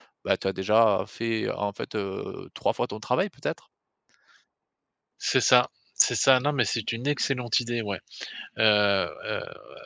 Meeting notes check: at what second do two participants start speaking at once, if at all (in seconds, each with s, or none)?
none